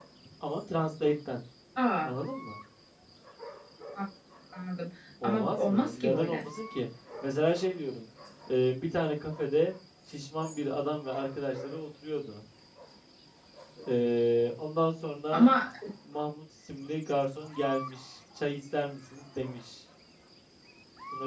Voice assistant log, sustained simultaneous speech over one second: present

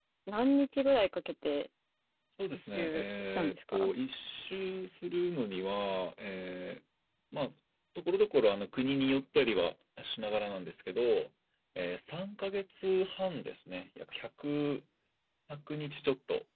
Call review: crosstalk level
present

